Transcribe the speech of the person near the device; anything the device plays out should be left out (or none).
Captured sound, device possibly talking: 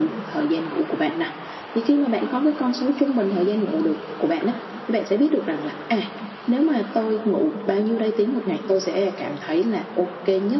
none